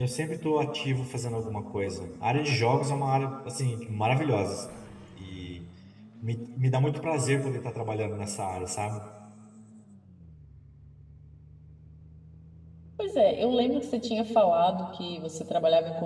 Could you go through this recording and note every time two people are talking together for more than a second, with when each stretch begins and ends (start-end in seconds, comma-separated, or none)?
none